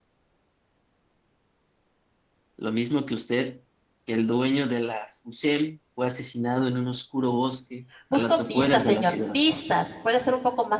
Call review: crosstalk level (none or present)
present